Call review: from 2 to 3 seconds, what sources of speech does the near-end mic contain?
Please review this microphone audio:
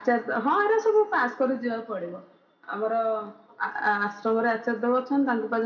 echo only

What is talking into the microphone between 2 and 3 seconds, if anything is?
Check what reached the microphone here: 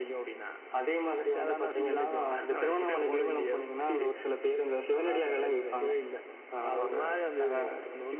echo only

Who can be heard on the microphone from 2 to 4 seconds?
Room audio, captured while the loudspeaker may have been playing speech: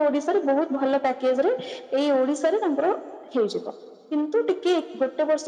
echo only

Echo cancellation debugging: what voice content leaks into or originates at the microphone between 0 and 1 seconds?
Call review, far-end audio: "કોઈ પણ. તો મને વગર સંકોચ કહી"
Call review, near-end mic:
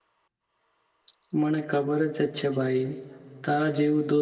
neither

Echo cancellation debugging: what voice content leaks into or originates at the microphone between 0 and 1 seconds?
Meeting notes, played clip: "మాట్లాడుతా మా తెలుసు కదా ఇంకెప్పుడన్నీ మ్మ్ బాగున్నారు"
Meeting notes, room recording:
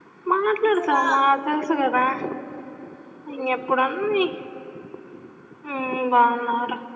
both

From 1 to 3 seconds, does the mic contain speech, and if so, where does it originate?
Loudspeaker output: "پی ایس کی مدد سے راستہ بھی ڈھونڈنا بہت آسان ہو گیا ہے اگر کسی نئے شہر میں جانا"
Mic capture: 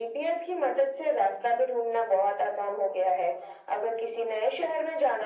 echo only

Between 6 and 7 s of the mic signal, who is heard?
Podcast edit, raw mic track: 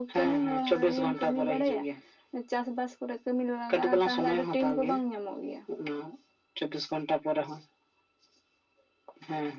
echo only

